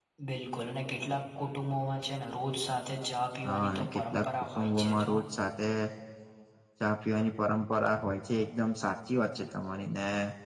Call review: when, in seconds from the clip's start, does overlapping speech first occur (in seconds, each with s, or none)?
3.4 s